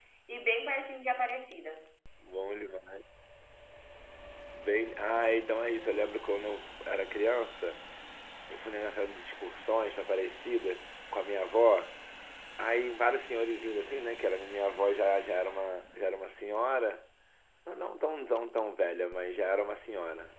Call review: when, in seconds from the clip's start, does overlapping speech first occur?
none

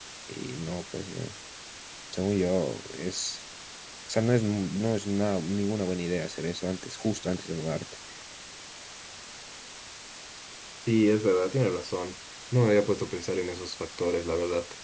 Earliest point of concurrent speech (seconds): none

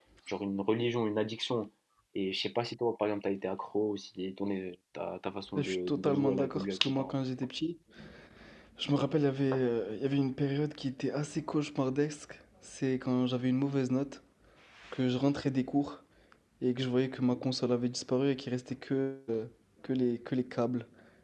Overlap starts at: 5 s

